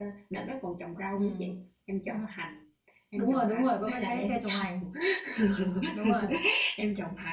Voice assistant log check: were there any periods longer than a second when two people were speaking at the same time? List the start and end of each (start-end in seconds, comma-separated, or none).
3.2-4.8